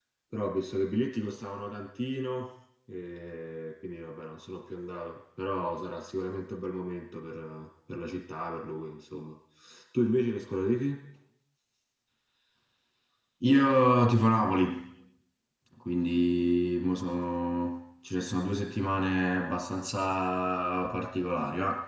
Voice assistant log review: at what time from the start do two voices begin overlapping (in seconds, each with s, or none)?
none